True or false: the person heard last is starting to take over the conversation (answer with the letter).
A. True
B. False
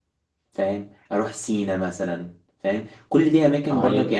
B